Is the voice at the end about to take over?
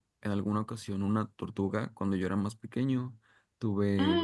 No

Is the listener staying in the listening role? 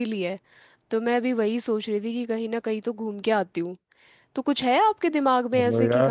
No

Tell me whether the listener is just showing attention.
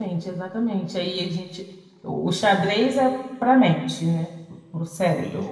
Yes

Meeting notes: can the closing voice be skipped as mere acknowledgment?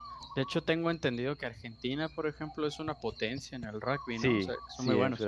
No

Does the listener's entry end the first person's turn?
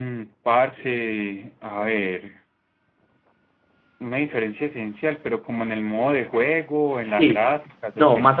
Yes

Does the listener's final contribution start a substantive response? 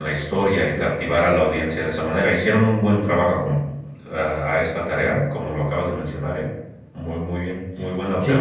Yes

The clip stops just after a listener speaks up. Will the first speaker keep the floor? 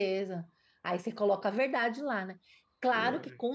Yes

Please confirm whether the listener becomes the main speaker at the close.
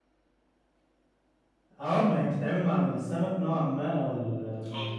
No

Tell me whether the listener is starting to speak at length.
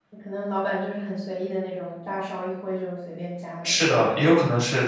Yes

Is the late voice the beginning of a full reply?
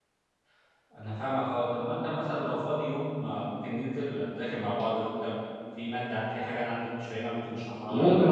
Yes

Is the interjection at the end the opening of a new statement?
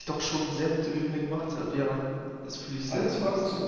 Yes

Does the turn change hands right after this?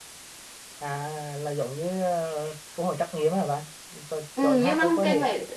Yes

